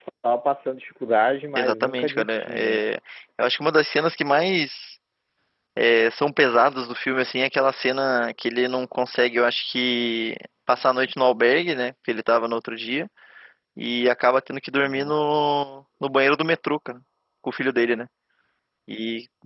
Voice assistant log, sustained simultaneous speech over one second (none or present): present